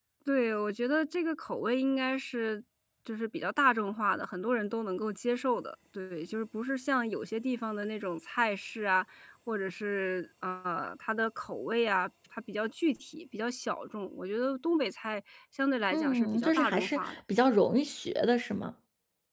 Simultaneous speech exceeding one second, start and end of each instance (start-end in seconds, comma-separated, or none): 15.9-17.2